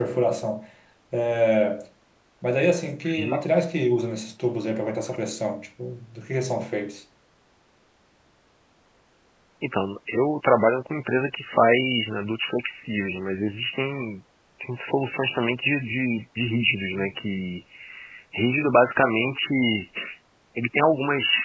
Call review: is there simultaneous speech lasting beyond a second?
No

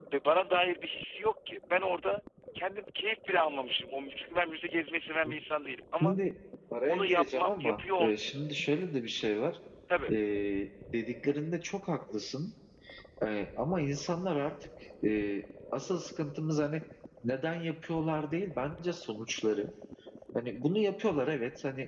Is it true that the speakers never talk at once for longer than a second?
No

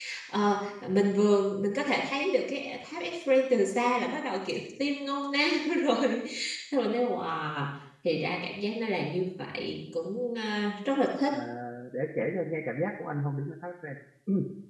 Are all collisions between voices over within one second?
Yes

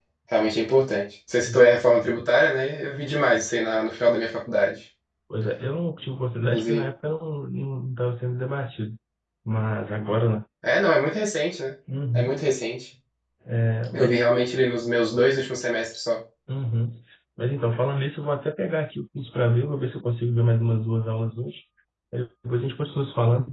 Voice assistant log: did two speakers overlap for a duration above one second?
No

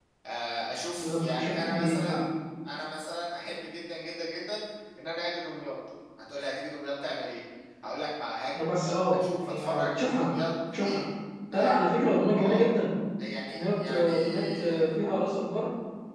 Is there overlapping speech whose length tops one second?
Yes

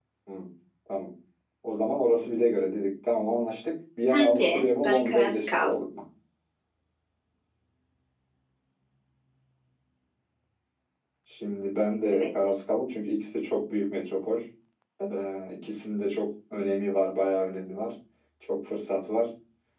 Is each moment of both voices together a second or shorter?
No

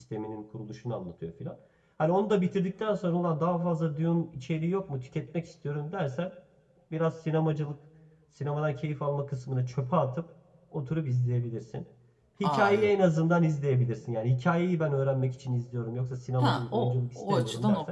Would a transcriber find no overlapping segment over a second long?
No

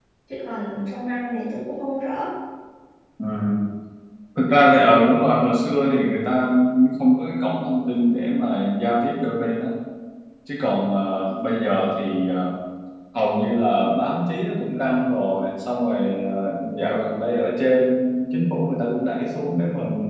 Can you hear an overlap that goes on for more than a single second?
No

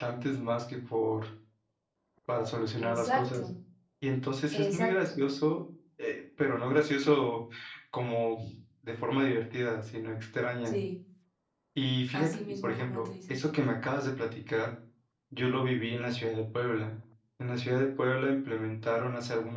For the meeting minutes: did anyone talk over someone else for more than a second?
Yes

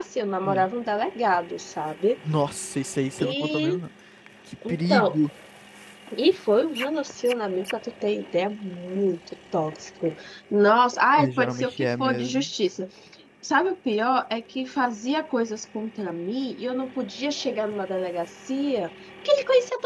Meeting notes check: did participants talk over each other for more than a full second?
Yes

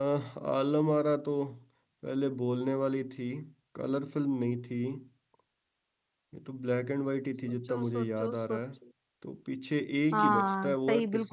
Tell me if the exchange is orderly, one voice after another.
No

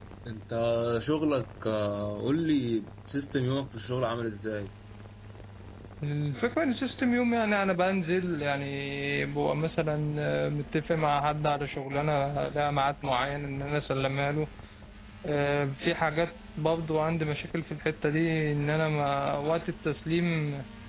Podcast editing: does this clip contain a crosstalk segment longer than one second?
No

